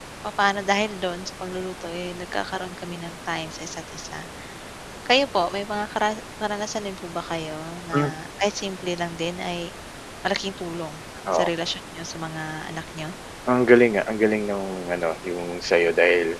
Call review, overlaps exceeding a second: none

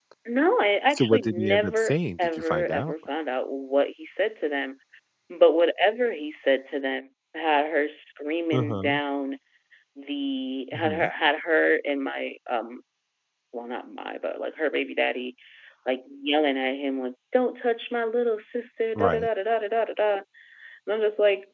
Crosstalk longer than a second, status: present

